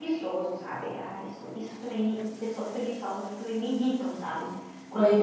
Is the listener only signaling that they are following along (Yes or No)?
No